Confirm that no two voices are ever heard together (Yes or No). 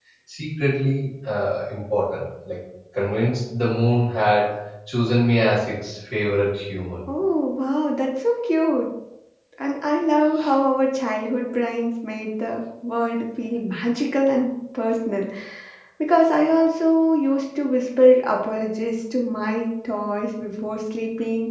Yes